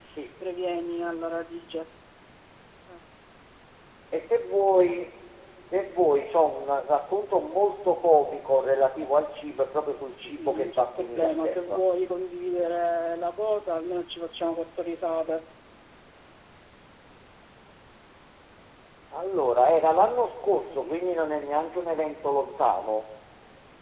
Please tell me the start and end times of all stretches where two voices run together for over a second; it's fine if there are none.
10.1-11.8

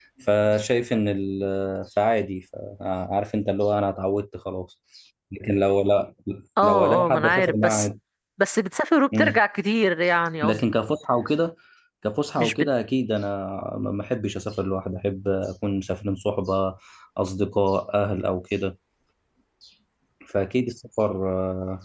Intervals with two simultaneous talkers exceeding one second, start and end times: 6.6-7.9

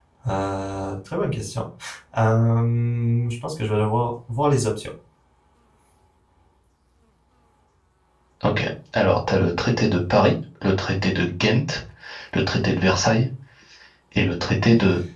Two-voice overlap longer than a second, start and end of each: none

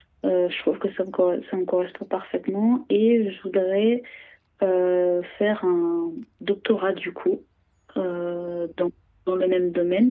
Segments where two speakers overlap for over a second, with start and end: none

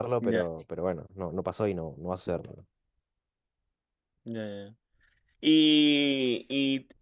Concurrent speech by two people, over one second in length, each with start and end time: none

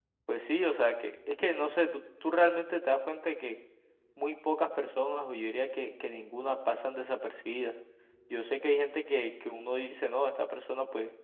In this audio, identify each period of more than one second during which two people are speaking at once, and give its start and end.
none

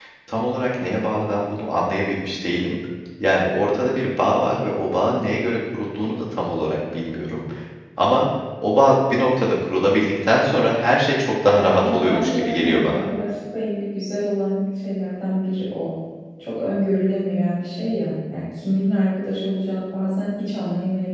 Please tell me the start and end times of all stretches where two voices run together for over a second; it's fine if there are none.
11.4-13.0

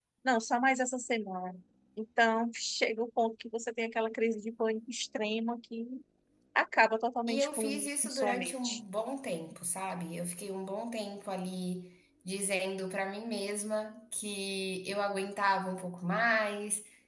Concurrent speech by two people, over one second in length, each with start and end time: 7.3-8.8

